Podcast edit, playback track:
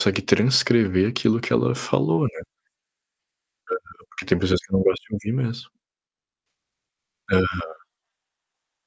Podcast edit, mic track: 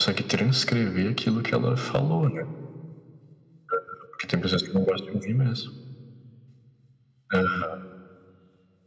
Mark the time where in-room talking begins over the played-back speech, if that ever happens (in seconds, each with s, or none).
none